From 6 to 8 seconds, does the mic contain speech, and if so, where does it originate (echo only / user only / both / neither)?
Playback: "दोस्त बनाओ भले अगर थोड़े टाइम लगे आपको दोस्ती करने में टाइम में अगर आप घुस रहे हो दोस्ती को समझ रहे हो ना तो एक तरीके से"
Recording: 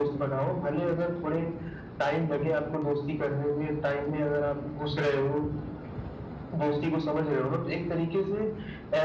echo only